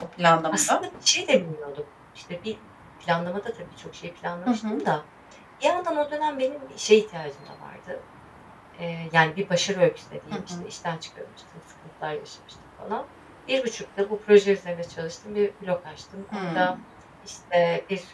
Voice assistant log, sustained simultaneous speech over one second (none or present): none